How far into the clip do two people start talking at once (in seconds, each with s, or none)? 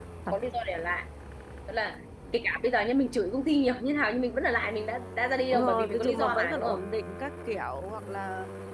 5.5 s